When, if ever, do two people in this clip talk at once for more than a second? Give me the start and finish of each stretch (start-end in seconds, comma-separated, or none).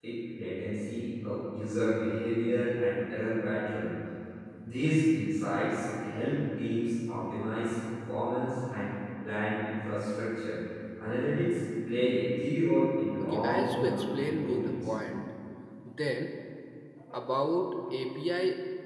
13.2-14.7